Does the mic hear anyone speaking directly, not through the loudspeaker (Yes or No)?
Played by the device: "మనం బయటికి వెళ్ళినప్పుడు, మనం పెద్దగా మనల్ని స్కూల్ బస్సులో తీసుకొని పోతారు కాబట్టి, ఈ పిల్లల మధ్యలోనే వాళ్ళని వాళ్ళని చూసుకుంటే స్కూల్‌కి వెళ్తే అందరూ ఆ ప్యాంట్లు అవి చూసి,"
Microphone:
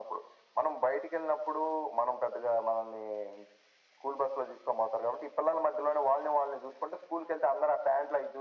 No